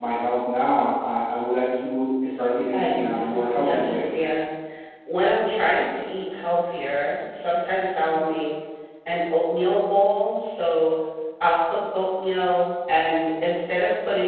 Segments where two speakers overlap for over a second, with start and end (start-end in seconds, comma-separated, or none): 2.7-4.1